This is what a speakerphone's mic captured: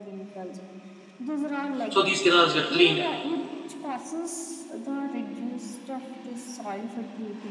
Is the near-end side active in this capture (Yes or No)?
Yes